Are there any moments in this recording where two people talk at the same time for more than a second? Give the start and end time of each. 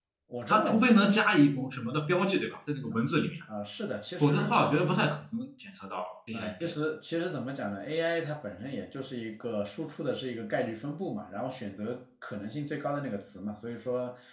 none

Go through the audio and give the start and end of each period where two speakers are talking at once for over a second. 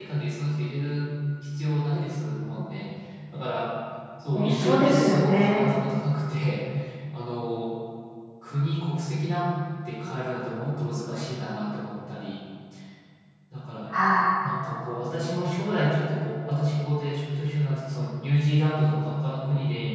4.3-5.7

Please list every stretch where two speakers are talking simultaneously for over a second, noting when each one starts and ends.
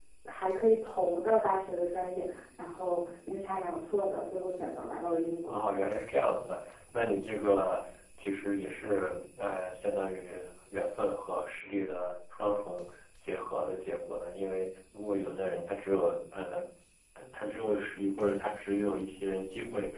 none

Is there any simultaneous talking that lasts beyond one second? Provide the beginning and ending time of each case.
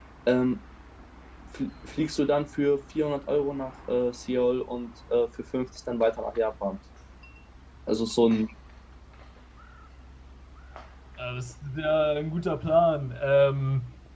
none

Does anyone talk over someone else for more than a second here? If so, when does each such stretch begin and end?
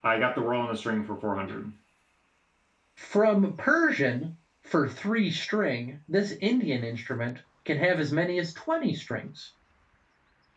none

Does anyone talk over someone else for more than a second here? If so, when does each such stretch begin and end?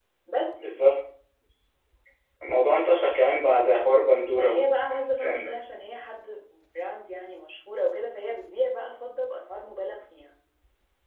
4.3-5.5

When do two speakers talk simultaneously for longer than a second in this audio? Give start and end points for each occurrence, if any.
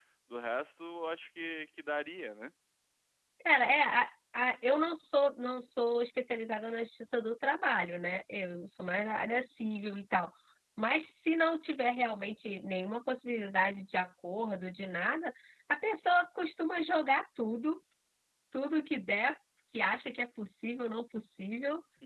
none

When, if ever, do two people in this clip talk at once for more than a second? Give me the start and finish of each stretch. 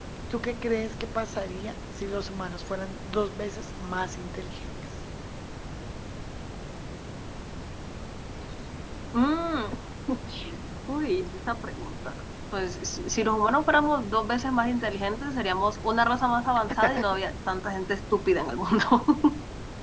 none

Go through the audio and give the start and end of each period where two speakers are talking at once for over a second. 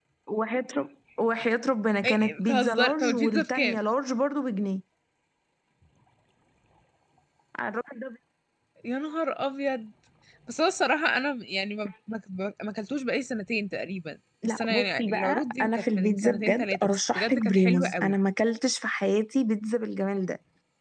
2.0-3.8, 14.4-18.2

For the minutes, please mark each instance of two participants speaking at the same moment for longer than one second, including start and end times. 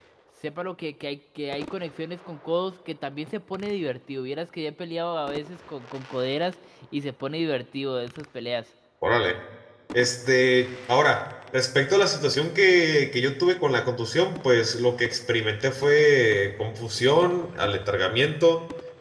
none

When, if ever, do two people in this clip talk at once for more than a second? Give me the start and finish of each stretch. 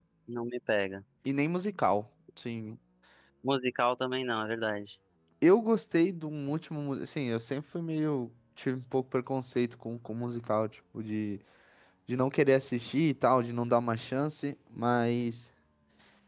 none

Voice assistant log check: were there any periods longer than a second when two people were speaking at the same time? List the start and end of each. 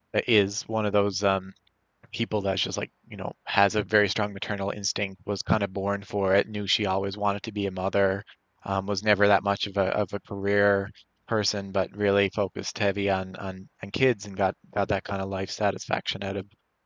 none

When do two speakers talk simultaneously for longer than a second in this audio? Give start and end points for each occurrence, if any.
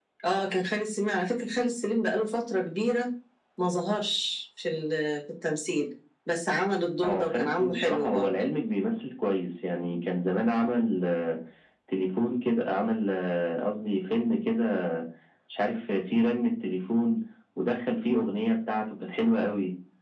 7.0-8.3

